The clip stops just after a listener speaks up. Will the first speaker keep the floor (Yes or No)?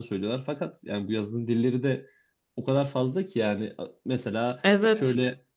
Yes